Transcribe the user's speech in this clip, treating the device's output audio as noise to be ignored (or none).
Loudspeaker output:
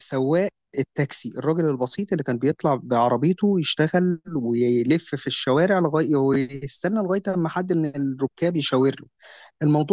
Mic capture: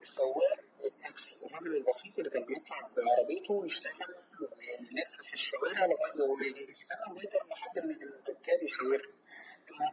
none